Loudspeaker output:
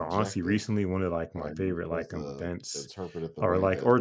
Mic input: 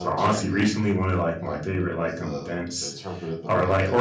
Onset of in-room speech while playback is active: none

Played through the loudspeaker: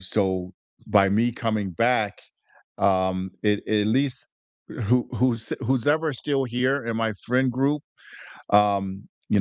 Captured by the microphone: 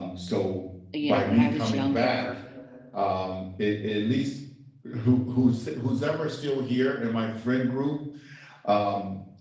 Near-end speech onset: 1 s

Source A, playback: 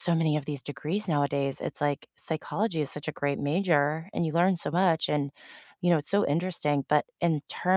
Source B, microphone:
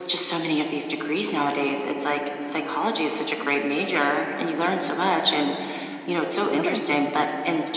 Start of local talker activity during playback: 7 s

